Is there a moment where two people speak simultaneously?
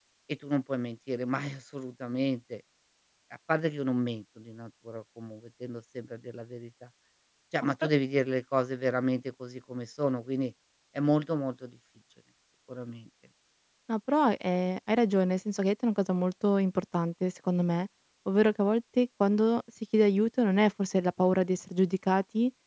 No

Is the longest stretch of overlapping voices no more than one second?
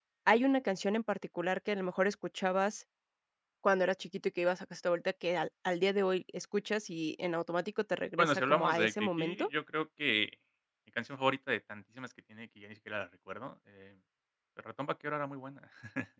No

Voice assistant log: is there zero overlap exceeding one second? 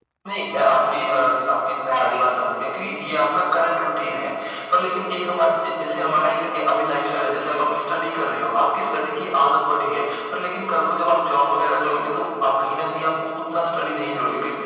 Yes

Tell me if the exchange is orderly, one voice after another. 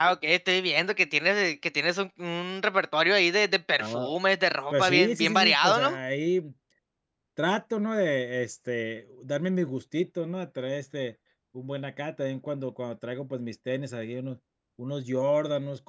No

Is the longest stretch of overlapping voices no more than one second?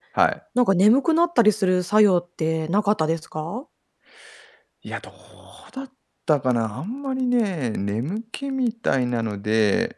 Yes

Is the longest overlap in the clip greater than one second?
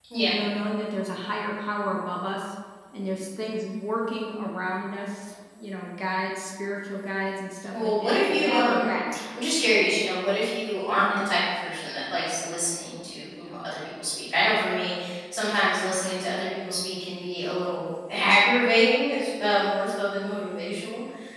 Yes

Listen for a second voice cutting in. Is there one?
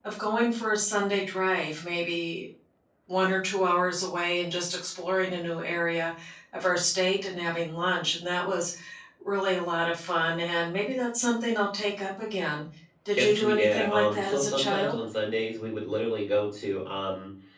Yes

